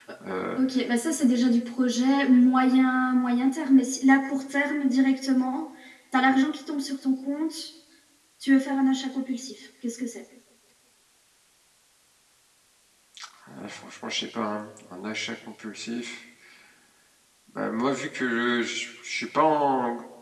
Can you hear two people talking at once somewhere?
No

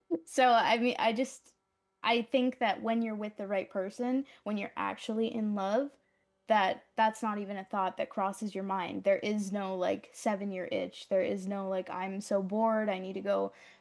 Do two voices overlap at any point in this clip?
No

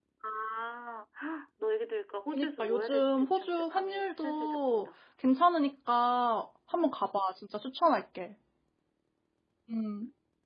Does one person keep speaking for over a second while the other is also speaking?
Yes, from 2.3 s

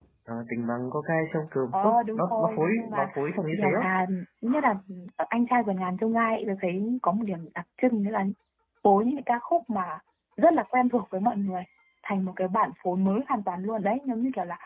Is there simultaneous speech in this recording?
Yes, from 1.7 s

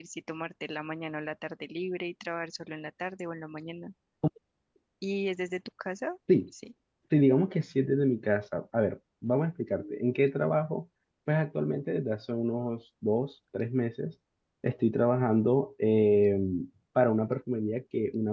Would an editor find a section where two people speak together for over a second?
No

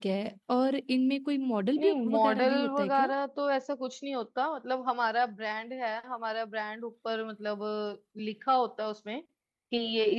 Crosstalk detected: Yes, from 1.8 s

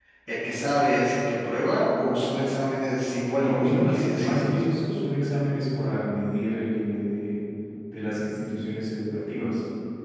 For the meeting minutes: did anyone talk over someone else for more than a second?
Yes, from 3.4 s

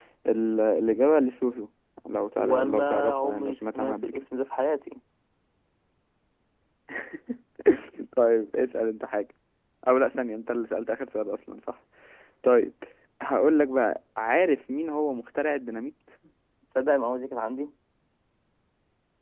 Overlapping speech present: Yes, from 2.4 s

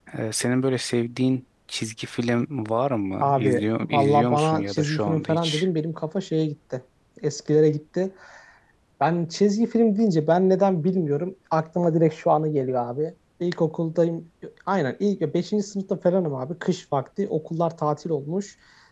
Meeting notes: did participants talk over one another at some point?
Yes, from 3.2 s

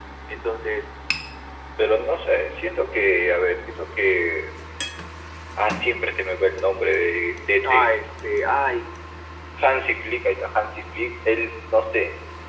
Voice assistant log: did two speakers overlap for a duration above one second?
No

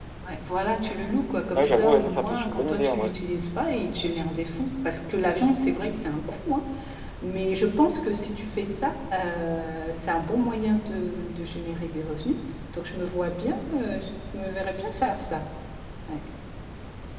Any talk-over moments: Yes, from 1.6 s

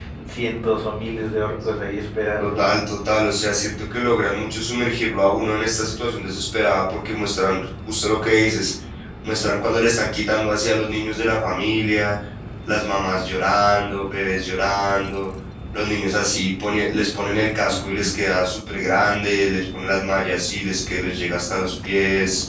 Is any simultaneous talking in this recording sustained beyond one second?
No

